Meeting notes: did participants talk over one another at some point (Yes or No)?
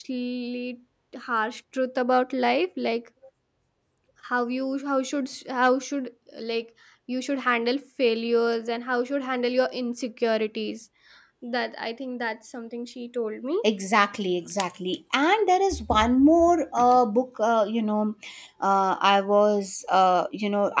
No